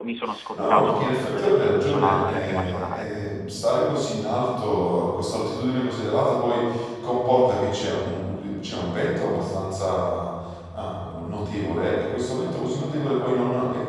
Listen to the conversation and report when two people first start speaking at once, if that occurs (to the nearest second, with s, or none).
1 s